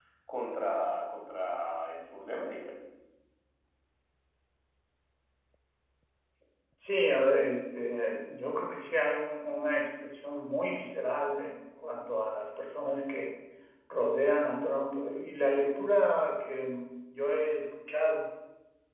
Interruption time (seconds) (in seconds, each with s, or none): none